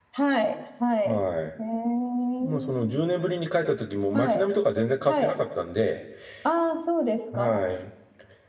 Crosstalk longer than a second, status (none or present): none